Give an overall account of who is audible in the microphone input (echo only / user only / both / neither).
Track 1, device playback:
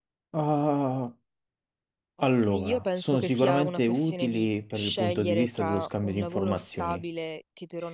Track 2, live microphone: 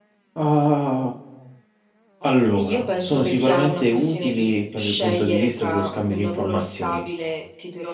echo only